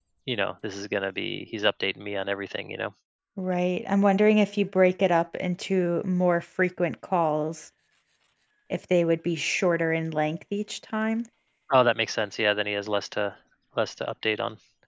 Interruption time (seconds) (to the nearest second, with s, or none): none